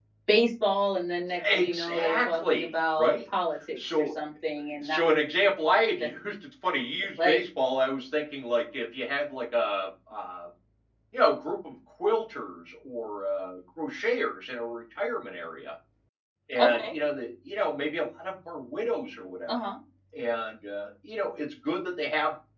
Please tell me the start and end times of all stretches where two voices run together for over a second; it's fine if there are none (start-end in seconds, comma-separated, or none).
1.6-3.1